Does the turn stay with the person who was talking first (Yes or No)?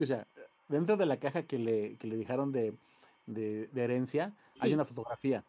Yes